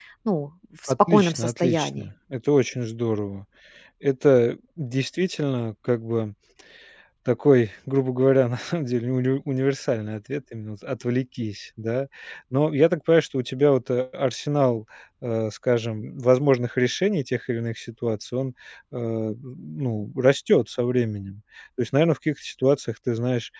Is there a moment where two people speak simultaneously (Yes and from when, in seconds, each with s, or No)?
Yes, from 0.9 s